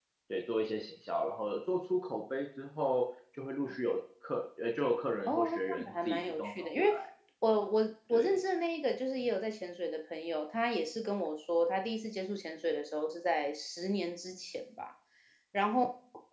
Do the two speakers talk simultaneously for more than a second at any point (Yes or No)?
Yes